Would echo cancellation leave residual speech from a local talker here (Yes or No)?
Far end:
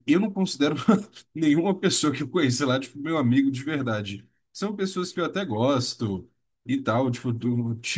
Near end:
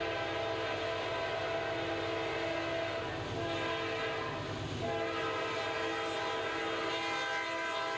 No